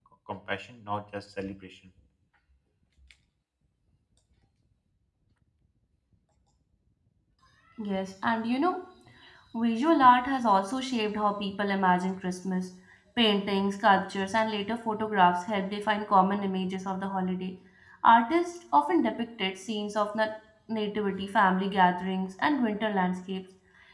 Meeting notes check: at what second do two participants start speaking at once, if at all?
none

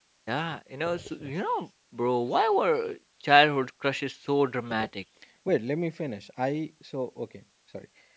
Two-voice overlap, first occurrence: none

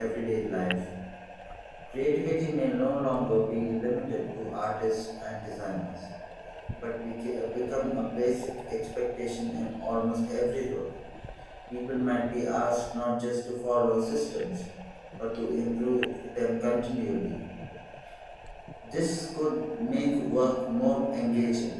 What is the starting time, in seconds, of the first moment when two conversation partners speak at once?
none

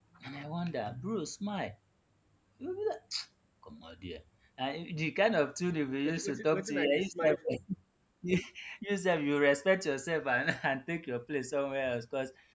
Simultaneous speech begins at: 6 s

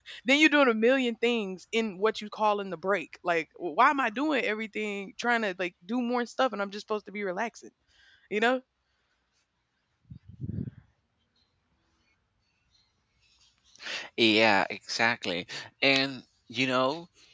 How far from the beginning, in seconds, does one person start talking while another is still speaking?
none

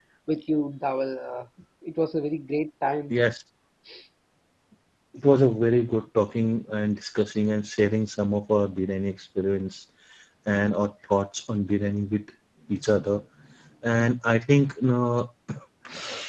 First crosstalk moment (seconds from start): none

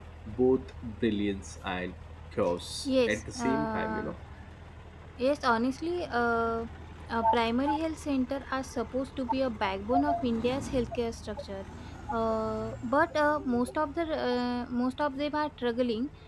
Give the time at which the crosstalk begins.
3 s

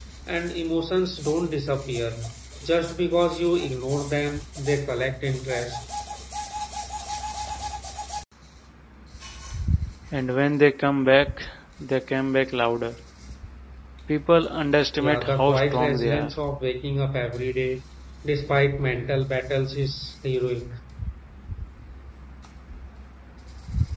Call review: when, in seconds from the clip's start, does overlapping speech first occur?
15 s

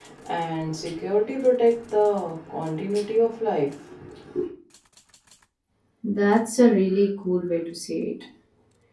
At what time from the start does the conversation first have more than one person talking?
none

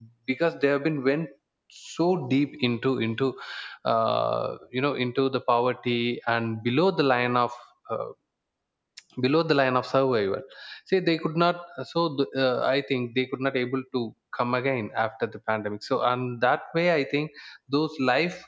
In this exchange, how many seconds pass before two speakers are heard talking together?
none

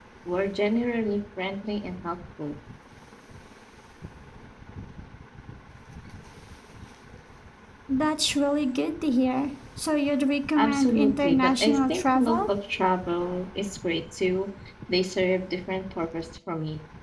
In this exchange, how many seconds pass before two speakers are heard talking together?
11 s

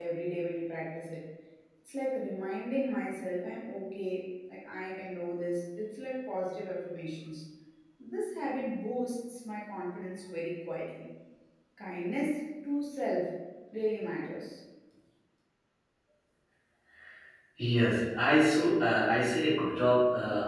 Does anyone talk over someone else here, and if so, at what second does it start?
none

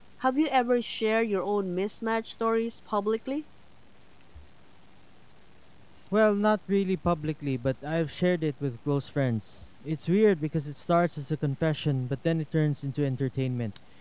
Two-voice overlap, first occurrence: none

